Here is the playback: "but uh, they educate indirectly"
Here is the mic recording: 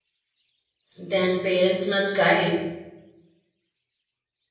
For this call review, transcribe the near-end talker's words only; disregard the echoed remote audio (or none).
Then parents must guide